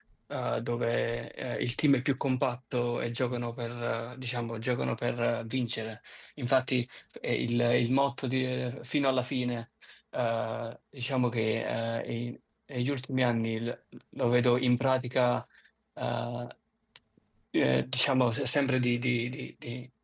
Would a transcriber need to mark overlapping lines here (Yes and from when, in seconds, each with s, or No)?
No